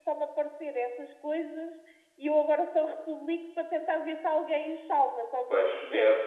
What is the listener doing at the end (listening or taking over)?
taking over